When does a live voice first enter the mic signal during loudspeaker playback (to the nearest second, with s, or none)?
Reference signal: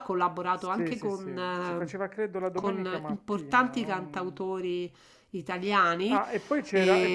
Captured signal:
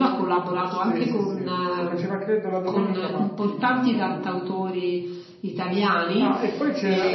none